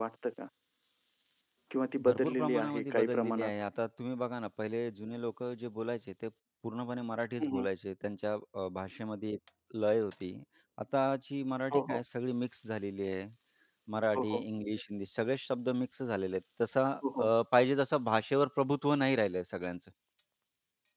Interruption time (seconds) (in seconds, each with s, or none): 2.0 s